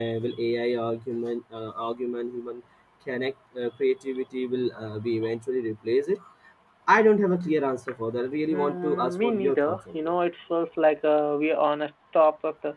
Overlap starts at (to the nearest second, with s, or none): 9 s